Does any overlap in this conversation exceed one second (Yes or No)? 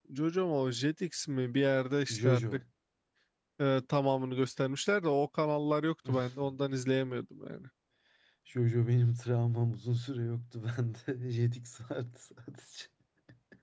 No